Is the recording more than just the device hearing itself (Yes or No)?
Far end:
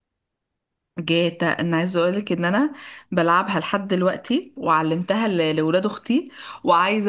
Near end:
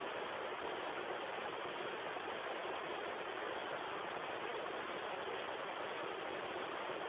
No